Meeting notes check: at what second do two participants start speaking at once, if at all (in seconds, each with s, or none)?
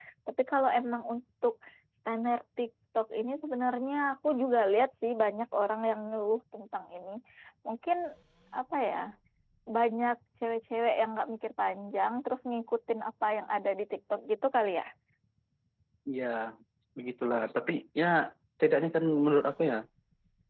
none